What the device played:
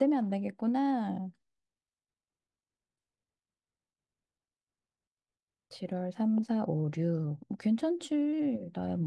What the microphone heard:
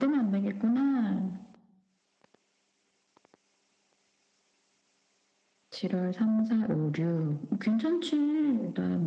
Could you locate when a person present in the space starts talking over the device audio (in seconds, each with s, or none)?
none